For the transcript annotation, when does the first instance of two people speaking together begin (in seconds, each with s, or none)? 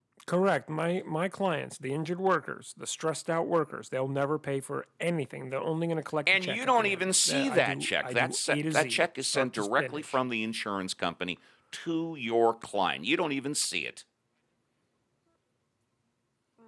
6.3 s